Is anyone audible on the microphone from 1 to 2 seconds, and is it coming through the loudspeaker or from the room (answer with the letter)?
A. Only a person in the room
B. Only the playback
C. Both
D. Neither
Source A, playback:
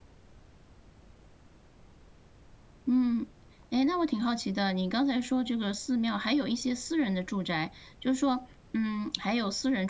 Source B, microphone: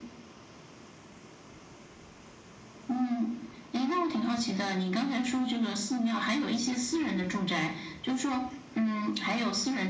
D